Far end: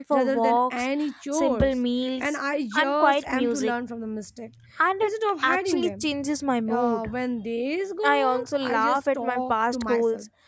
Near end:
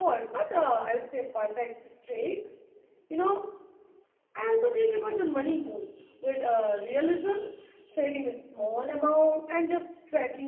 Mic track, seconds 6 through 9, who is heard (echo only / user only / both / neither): user only